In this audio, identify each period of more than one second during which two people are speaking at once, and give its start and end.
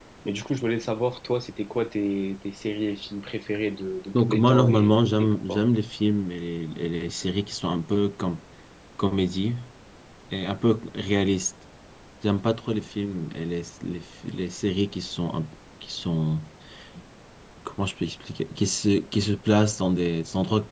4.2-5.7

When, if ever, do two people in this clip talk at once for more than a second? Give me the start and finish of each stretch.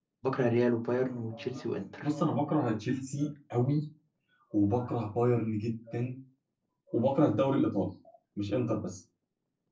none

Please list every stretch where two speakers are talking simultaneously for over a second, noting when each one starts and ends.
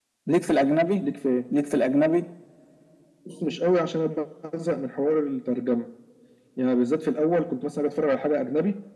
none

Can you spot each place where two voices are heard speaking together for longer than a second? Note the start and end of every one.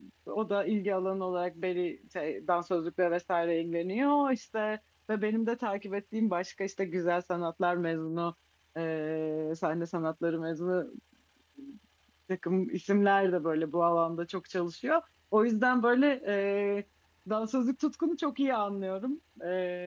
none

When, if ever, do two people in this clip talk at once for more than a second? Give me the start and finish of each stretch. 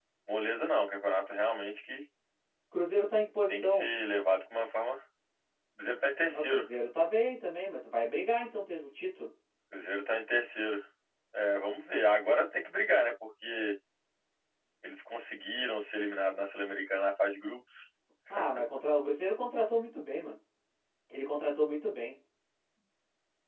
none

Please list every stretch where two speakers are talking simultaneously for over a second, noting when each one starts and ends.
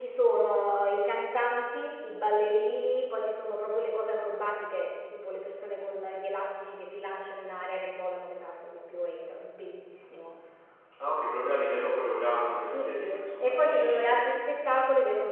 12.7-14.1

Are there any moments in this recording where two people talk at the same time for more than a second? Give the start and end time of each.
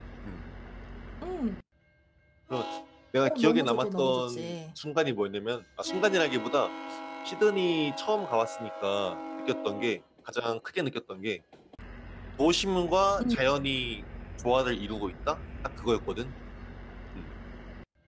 3.2-4.5

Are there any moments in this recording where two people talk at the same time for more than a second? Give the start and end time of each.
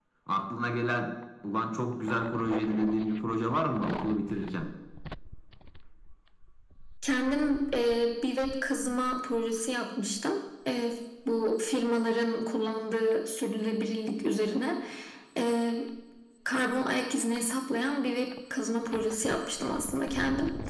none

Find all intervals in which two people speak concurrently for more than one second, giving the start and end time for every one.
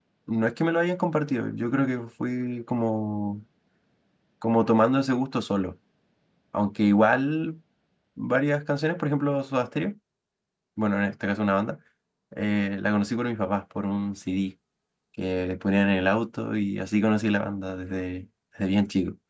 none

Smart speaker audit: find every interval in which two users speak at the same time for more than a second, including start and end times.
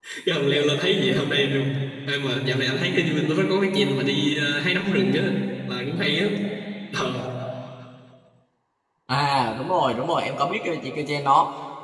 none

